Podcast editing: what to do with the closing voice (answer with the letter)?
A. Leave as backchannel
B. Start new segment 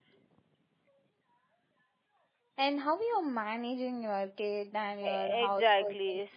B